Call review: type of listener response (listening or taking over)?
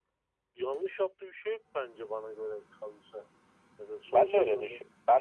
taking over